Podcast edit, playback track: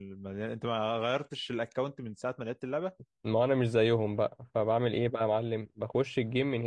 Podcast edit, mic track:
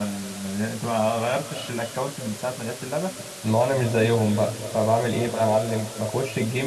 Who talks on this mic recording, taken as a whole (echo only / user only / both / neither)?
echo only